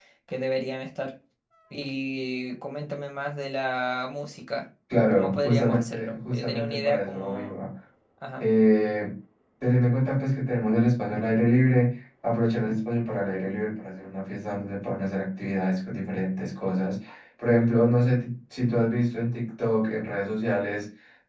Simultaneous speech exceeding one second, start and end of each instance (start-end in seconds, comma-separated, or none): 5.1-7.5